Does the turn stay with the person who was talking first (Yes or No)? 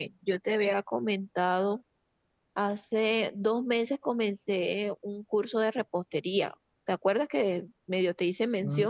No